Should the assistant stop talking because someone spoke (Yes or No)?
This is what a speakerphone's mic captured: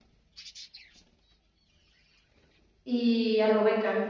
Yes